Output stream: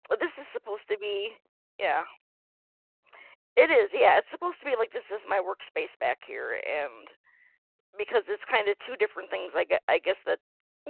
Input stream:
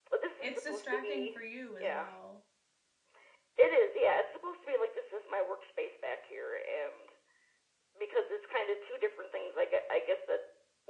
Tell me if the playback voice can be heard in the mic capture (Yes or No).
Yes